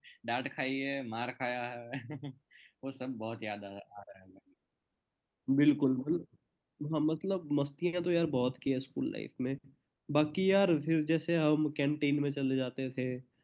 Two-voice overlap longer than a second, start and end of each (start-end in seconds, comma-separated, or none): none